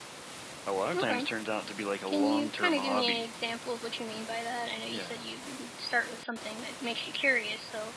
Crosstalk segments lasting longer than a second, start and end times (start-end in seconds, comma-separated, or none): 2.1-3.3